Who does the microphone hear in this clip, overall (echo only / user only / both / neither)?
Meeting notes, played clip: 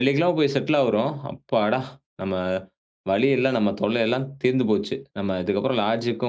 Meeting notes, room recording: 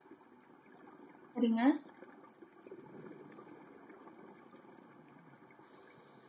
user only